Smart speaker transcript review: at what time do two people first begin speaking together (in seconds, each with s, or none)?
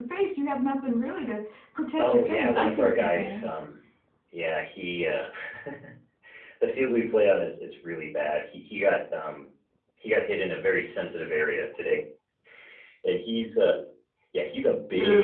2.0 s